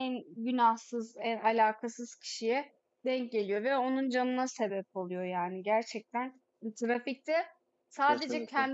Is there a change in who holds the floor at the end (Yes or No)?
No